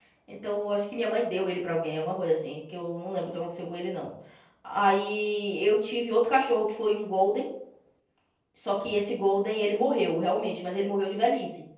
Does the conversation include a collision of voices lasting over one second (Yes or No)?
No